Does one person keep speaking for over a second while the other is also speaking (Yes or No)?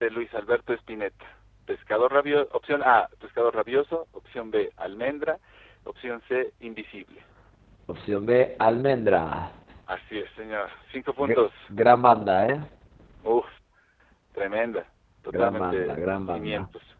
Yes